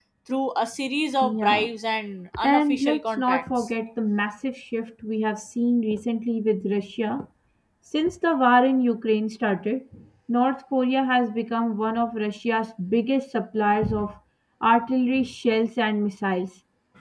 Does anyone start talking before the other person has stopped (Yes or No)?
Yes